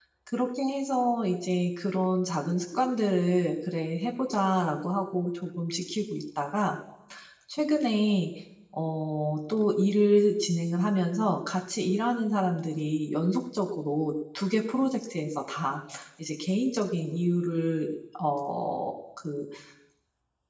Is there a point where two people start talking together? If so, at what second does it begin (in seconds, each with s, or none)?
none